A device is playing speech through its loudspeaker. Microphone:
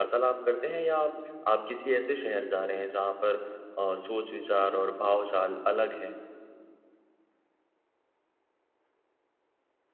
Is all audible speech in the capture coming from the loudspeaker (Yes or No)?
No